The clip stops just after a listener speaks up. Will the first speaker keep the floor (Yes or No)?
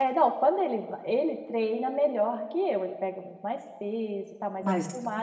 Yes